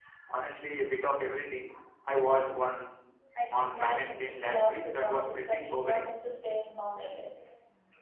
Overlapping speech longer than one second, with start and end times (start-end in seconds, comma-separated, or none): 3.5-6.1